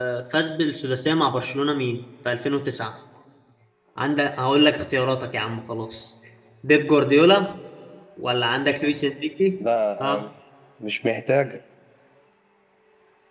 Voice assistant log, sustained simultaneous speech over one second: none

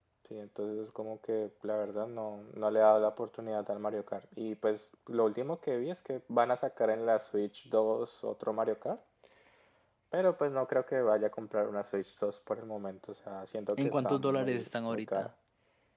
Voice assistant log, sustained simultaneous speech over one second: present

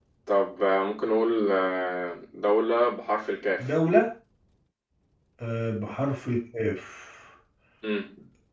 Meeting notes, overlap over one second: none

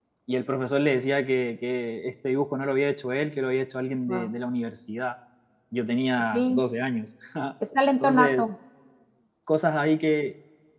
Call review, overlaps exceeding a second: none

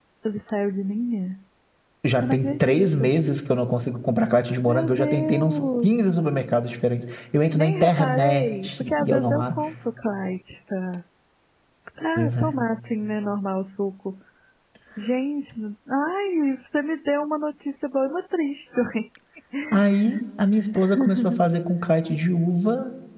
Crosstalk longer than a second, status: present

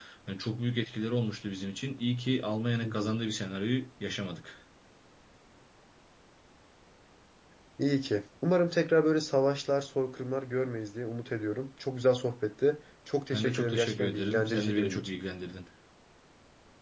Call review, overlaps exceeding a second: present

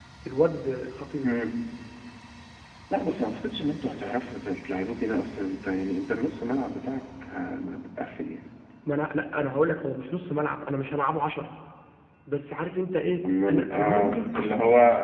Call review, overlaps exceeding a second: present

